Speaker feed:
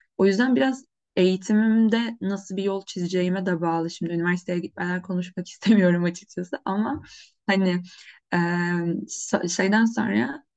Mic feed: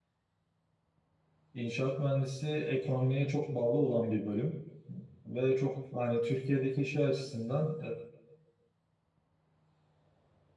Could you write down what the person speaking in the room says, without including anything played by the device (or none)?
e, inşaat mühendisi ekonomiye çok bağlı olan bir bölüm ve çok hani Türkiye'deki şey açısından